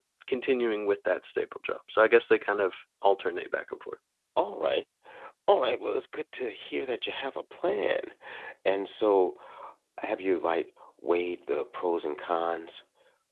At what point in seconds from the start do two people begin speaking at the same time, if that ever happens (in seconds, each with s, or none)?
none